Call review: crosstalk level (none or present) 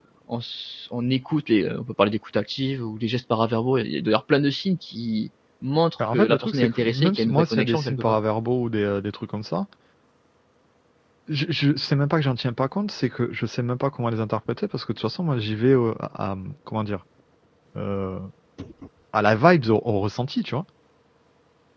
present